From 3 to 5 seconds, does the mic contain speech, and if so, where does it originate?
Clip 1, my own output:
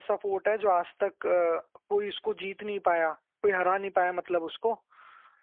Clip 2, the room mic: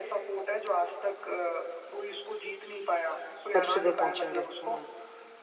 both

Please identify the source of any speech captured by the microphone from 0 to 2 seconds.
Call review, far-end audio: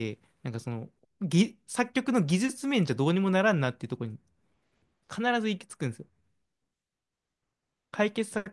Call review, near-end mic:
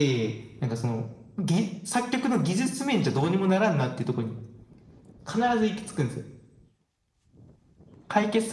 echo only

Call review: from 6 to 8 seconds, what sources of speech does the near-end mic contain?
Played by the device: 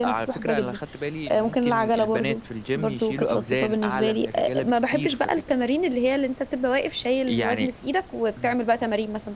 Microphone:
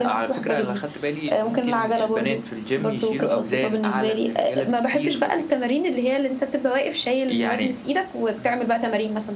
echo only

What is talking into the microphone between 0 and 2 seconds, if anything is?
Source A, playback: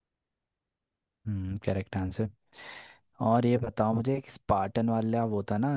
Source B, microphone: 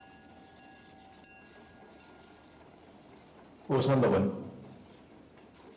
neither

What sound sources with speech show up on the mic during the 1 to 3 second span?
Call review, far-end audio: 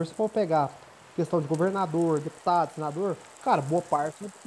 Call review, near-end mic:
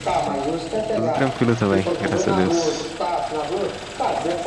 both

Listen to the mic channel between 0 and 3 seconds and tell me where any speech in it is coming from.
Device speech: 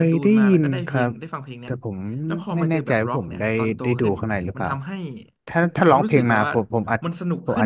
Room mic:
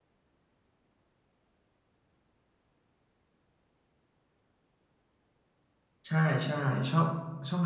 neither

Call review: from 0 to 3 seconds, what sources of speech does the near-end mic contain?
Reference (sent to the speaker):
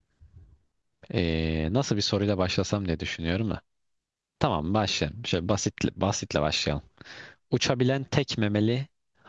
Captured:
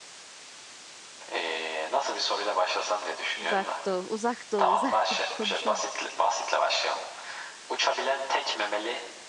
echo only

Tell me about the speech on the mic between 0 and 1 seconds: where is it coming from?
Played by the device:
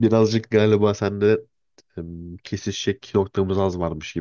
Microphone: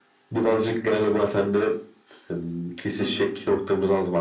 echo only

